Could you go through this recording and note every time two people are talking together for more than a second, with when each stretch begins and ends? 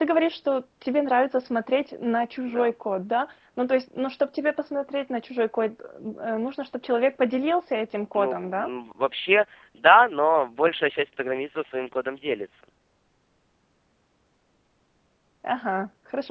none

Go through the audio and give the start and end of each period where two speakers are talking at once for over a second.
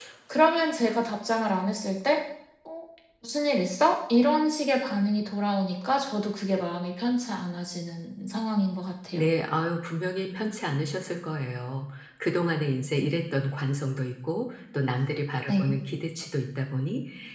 none

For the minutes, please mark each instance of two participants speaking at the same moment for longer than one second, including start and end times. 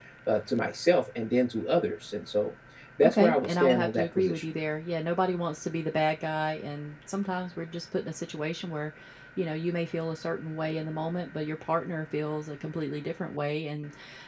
3.0-4.4

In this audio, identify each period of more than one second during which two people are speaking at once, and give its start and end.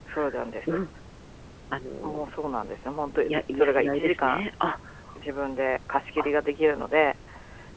3.2-4.4

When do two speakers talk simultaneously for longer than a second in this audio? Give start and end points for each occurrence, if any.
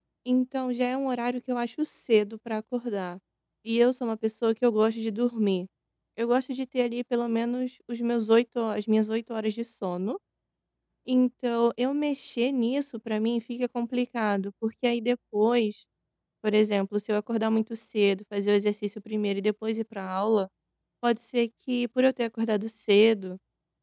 none

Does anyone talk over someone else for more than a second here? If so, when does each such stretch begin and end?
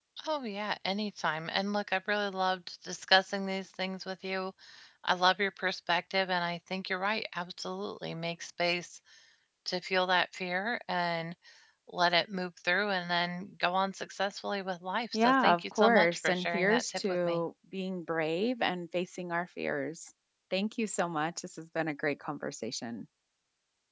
15.1-17.4

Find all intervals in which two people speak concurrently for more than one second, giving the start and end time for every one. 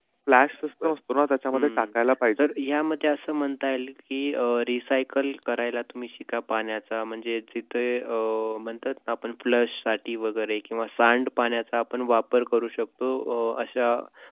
none

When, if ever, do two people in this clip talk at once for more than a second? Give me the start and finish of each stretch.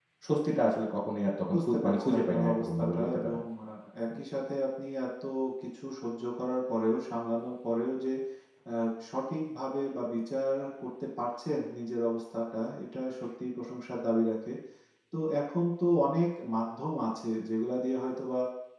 1.5-3.4

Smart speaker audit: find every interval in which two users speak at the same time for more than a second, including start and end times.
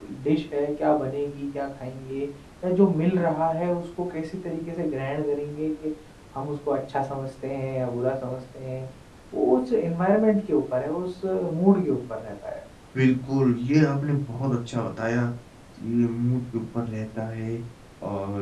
none

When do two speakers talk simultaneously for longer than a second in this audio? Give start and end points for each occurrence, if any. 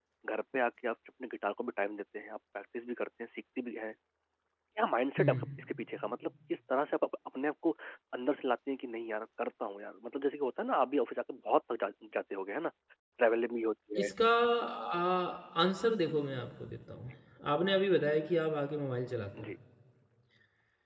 none

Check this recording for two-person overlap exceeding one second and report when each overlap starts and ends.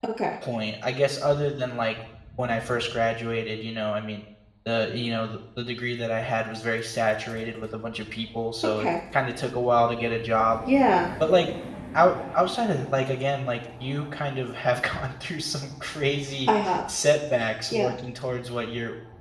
none

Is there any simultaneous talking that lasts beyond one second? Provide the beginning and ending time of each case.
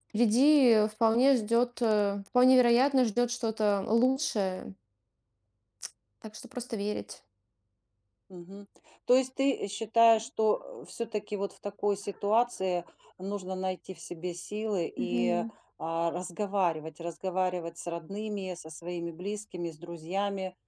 none

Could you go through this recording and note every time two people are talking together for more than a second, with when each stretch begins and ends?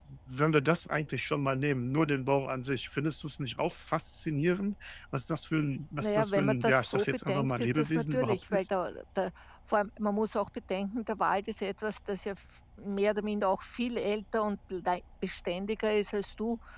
6.0-8.7

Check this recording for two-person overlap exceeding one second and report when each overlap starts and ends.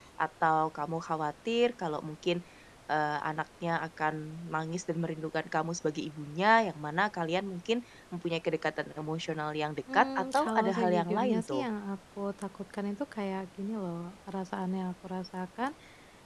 9.9-11.6

